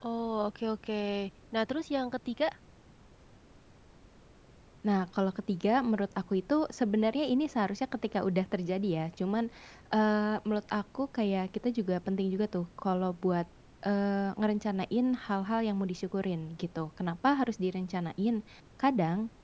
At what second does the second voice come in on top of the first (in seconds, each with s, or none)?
none